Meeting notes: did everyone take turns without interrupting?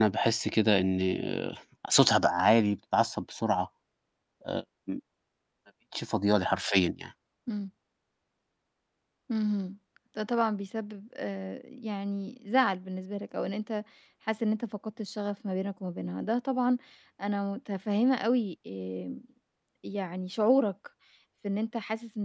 Yes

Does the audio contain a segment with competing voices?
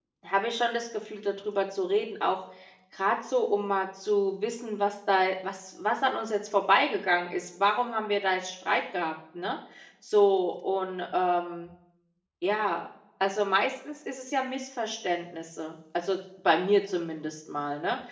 No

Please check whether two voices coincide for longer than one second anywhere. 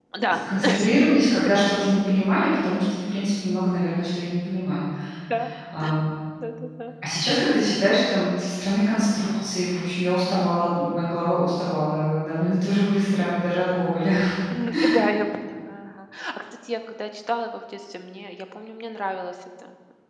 No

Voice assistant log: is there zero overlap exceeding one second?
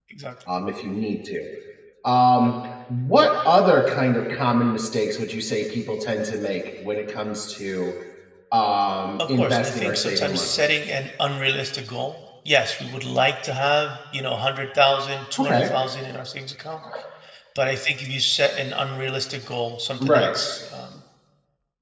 No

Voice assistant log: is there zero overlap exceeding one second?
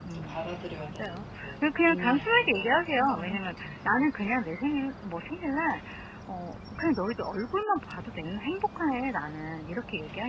No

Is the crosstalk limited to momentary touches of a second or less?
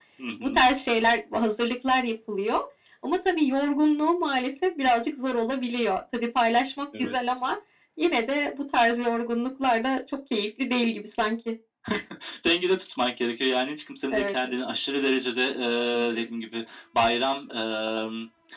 Yes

